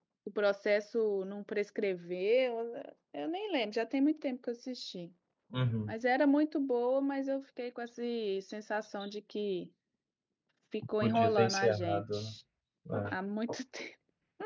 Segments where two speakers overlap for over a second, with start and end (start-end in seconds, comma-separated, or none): 11.0-12.3